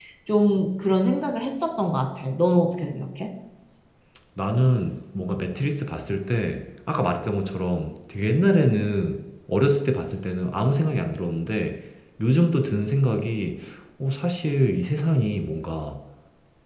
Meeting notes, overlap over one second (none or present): none